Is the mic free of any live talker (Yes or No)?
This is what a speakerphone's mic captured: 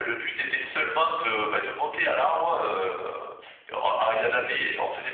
Yes